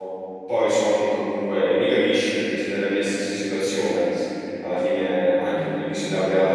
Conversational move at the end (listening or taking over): listening